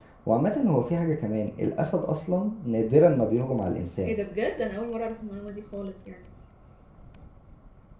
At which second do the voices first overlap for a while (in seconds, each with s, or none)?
none